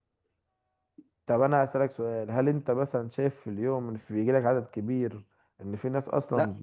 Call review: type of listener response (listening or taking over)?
taking over